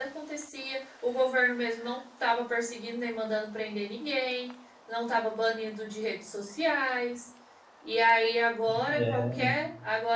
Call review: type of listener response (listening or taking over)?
listening